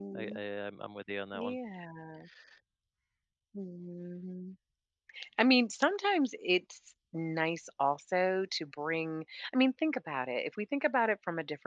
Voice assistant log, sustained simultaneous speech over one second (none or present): none